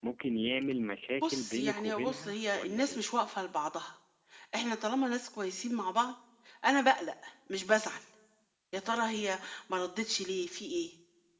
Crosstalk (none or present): present